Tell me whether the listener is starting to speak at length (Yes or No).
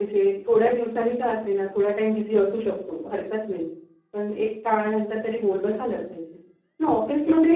No